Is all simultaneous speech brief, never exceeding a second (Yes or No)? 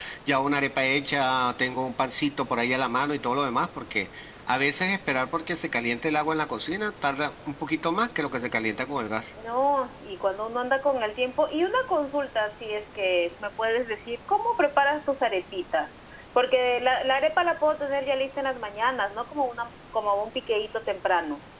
Yes